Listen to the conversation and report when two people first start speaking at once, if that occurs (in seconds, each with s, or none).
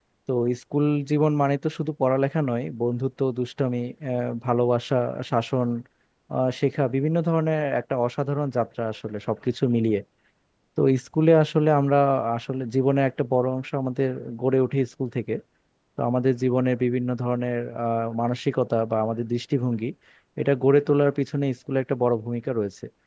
none